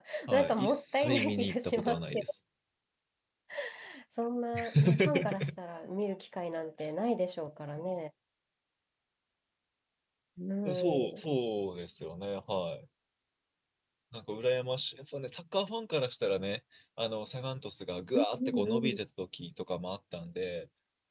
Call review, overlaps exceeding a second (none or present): present